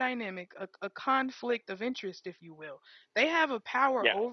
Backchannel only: Yes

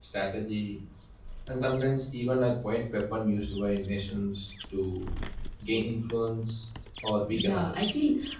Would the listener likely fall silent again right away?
No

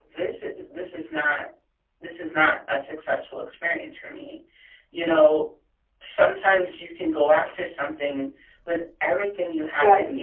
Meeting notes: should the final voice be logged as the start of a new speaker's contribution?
No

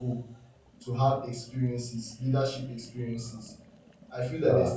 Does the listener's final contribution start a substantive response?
No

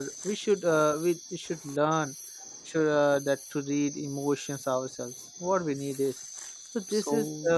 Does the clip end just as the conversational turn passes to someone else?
No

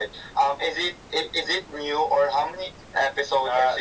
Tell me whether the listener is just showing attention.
No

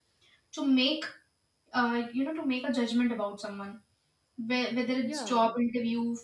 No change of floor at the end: Yes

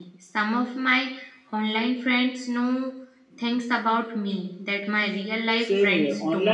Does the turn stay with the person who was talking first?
No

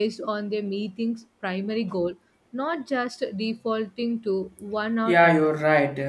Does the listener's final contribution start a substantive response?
Yes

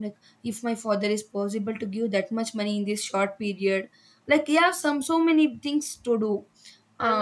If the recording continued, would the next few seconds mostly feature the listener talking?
Yes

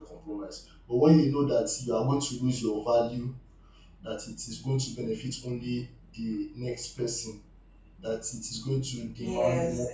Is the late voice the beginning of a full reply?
Yes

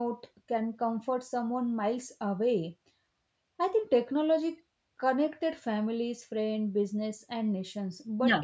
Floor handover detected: No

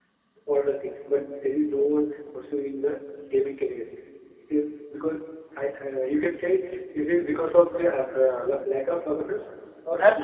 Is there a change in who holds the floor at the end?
Yes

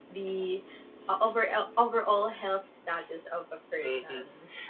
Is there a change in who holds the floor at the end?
Yes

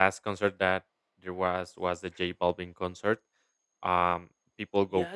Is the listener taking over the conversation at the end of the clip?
Yes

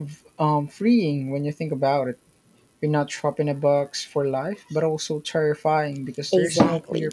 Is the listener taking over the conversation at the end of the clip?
Yes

